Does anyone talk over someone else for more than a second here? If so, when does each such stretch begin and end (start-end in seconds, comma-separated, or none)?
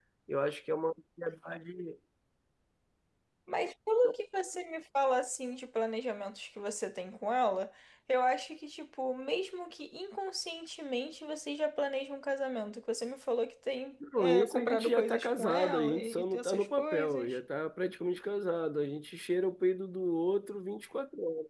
14.2-17.4